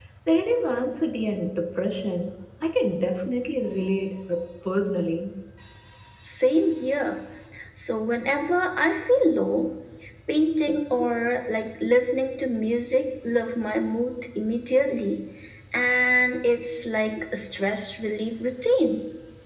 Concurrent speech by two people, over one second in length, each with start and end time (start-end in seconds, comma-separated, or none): none